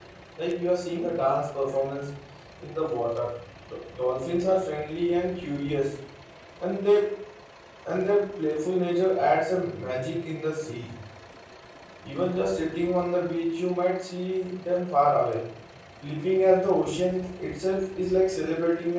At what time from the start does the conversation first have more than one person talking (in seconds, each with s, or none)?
none